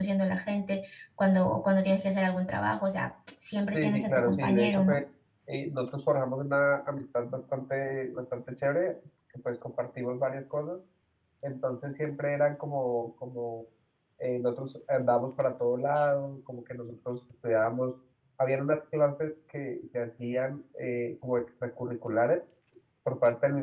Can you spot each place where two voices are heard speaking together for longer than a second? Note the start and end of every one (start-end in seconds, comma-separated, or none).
3.7-5.0